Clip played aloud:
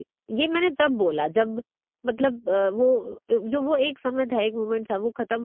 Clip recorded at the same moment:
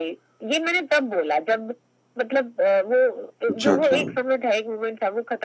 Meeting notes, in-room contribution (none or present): present